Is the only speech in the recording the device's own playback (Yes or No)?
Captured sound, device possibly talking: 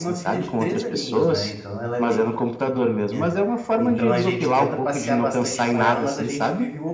No